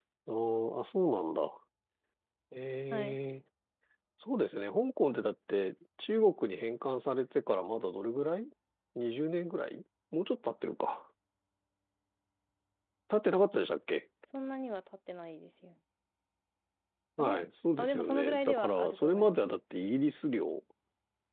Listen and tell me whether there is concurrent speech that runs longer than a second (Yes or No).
Yes